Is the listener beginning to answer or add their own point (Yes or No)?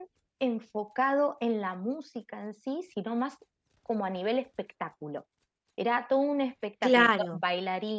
No